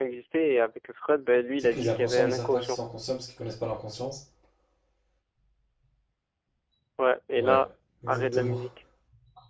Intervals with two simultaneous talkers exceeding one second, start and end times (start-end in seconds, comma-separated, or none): 1.6-2.8